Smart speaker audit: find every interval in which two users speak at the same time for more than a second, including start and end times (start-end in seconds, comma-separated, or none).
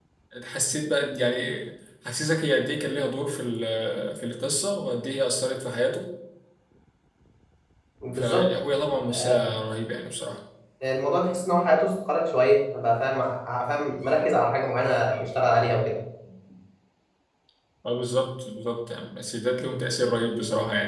none